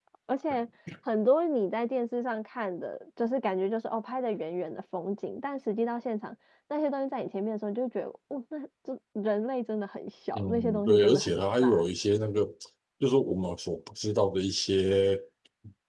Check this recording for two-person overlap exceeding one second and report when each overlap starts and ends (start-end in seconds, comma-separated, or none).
10.3-11.9